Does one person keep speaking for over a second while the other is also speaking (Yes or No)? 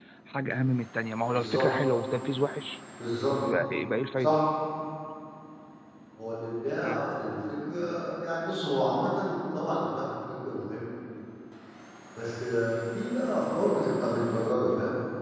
No